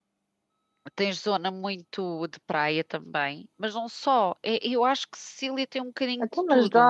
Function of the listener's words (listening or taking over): taking over